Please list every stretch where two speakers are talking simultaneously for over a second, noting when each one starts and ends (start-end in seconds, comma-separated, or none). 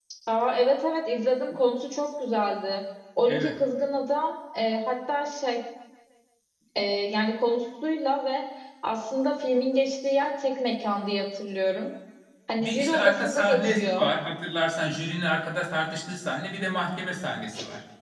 12.6-14.1